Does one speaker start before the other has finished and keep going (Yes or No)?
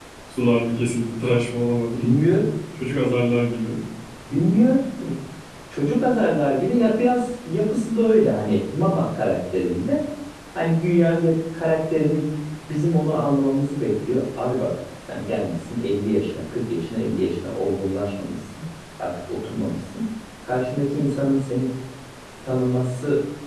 No